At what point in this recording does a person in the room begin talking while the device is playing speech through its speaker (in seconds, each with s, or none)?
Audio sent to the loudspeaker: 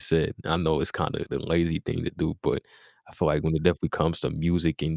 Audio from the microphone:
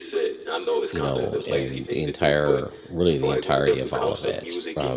0.9 s